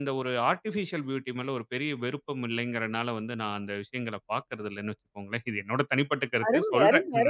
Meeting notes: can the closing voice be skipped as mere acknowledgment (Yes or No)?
No